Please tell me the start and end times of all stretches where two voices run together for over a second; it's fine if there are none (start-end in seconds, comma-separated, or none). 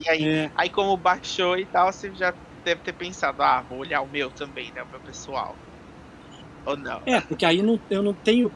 none